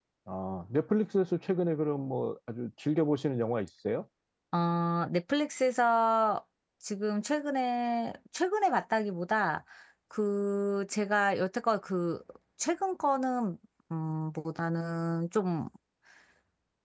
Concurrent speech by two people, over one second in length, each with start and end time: none

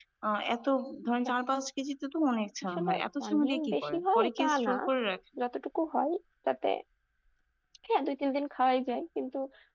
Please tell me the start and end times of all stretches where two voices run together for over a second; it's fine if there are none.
3.3-4.7

